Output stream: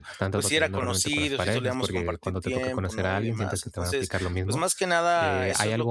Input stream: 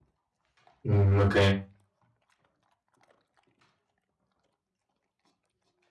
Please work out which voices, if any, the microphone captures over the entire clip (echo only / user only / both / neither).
user only